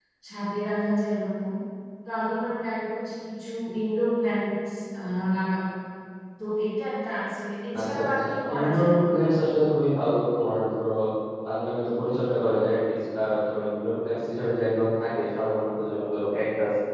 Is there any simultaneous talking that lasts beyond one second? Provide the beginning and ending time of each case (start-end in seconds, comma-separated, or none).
7.8-9.2